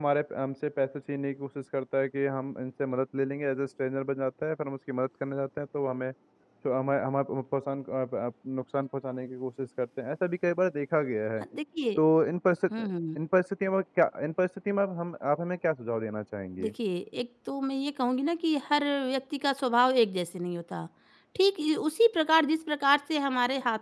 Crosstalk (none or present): none